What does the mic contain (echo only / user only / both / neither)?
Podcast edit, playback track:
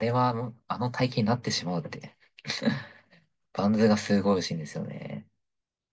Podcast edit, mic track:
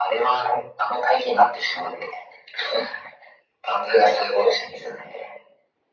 echo only